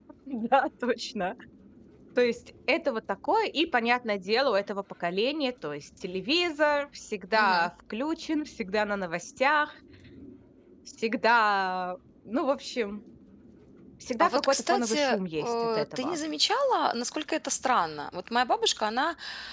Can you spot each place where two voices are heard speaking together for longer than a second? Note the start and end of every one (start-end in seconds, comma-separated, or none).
14.2-16.2